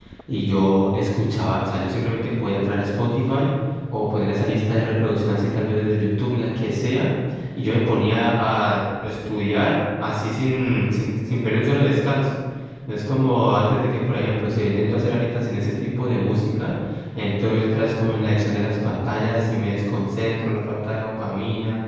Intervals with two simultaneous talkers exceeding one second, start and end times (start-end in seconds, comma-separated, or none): none